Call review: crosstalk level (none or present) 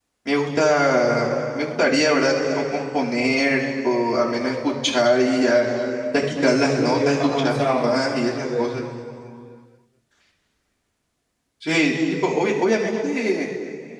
present